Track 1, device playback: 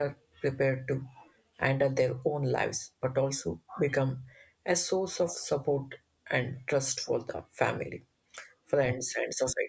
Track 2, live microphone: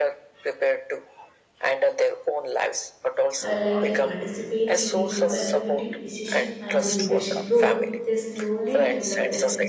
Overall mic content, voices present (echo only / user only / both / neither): both